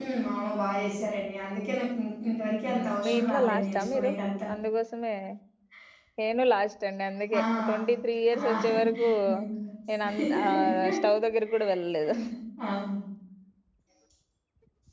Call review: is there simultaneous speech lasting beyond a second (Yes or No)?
Yes